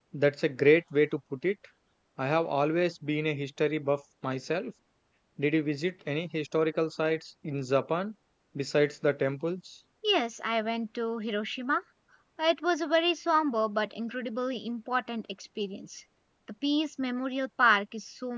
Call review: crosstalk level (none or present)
none